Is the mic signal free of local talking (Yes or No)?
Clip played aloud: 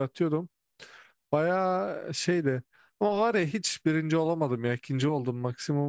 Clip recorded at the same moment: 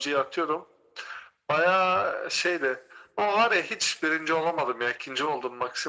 Yes